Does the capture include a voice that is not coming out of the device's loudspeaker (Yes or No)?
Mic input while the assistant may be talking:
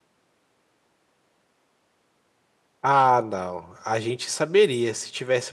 Yes